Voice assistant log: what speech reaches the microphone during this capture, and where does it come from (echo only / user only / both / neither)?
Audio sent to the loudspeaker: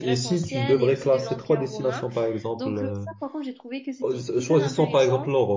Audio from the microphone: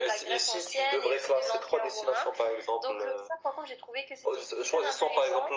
echo only